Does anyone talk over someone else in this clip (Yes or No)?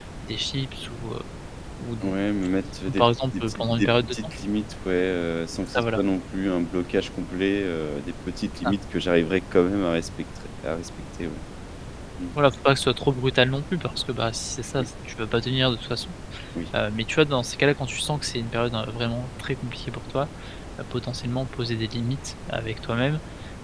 Yes